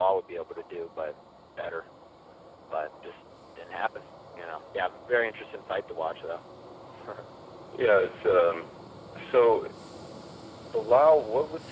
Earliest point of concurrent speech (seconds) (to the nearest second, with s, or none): none